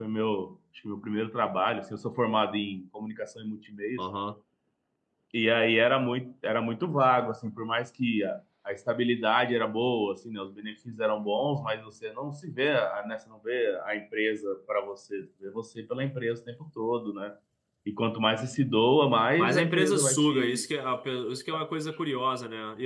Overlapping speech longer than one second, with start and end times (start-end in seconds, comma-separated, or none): 19.4-20.6